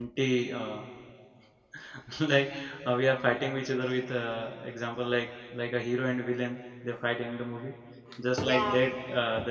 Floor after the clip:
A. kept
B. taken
A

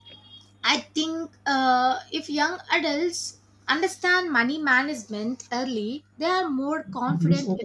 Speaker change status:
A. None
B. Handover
A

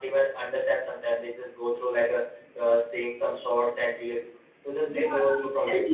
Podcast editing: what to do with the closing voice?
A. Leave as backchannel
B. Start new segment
B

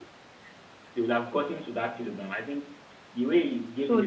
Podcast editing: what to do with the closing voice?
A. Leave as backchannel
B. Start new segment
B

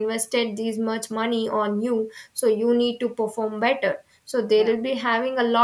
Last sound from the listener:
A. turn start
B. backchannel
B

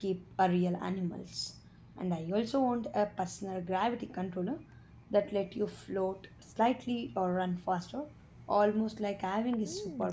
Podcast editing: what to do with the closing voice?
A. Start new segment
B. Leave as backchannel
A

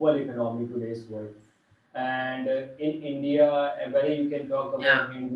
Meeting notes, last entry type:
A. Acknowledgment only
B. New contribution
A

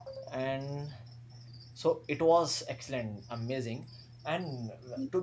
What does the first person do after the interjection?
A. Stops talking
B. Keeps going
B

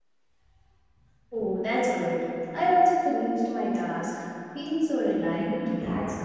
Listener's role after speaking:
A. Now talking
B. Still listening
A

